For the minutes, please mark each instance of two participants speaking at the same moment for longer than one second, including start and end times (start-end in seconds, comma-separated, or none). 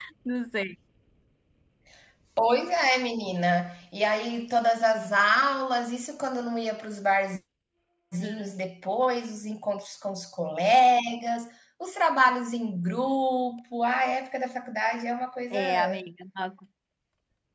none